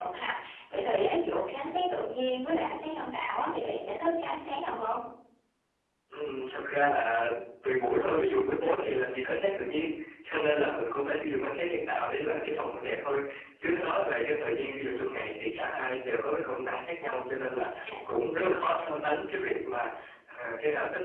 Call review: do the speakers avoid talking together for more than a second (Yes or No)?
Yes